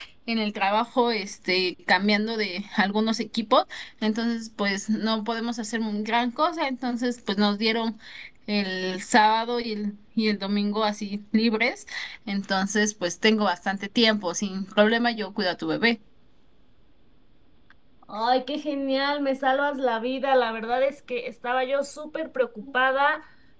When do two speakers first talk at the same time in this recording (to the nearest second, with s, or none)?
none